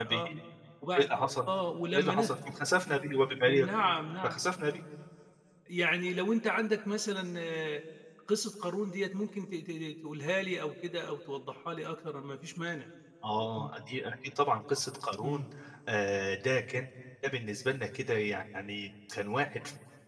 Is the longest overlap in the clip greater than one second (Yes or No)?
No